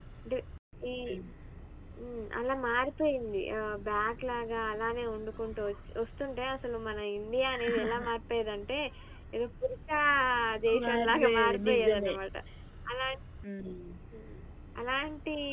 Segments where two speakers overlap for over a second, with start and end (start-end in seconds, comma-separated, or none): 10.8-12.1